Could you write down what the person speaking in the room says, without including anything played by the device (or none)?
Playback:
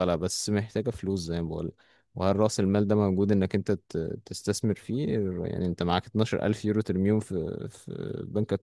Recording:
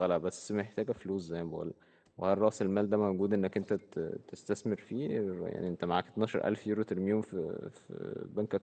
none